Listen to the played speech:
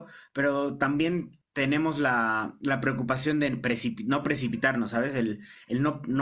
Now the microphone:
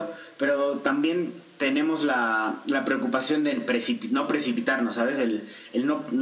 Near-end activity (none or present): none